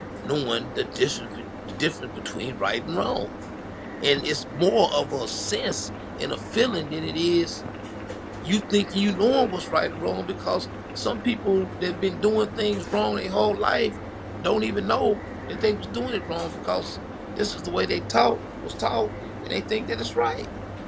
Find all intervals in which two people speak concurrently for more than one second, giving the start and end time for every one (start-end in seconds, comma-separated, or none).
none